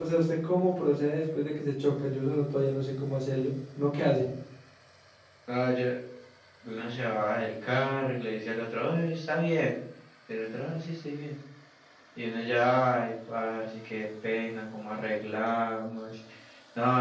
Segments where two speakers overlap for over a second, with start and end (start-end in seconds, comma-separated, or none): none